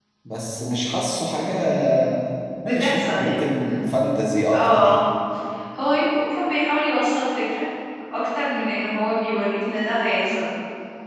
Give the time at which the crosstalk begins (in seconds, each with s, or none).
2.6 s